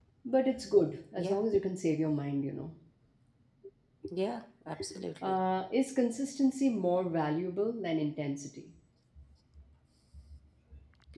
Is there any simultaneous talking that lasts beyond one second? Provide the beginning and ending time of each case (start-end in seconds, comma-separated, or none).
none